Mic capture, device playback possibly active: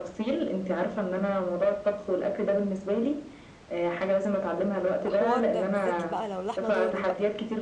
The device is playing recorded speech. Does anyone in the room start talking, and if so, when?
5.0 s

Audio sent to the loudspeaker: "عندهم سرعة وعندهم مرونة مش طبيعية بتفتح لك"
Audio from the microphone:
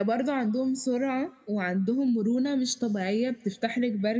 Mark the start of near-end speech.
none

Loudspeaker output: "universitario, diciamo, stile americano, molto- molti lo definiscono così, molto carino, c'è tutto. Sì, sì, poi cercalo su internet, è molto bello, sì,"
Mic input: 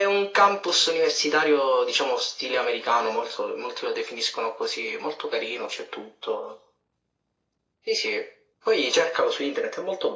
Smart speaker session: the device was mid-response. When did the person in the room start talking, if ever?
none

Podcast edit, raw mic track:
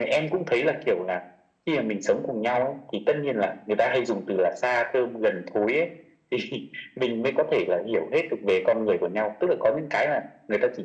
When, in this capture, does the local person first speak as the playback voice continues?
none

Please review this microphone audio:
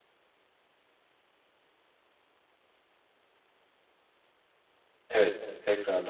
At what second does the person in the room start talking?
5.1 s

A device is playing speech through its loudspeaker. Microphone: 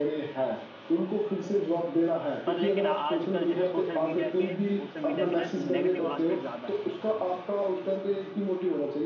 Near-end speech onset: 2.5 s

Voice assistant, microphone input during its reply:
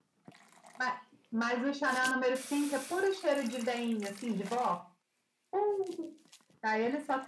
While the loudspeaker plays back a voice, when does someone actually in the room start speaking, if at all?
none

